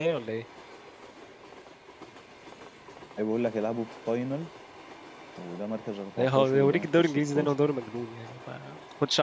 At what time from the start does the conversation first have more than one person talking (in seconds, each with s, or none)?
6.2 s